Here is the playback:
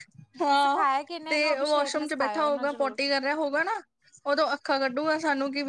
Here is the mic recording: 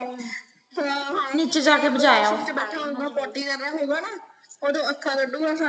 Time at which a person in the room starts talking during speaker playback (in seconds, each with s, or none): 1.3 s